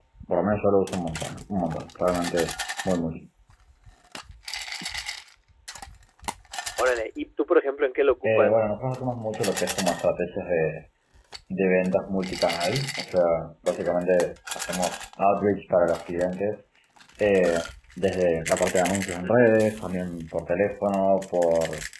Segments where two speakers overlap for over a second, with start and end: none

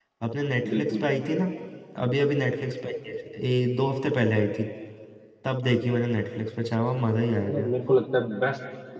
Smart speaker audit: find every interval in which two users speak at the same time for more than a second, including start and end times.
none

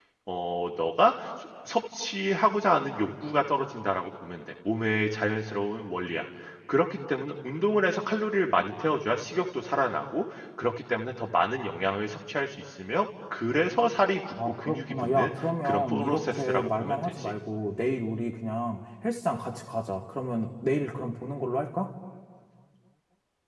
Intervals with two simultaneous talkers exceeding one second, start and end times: 14.4-17.3

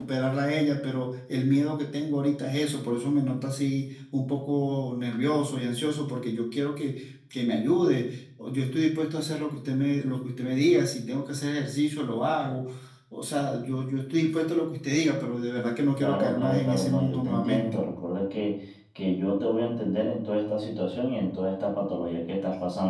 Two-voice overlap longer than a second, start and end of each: 16.0-17.8

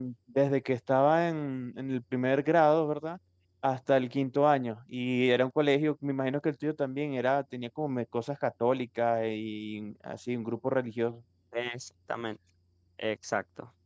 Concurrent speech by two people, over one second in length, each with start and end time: none

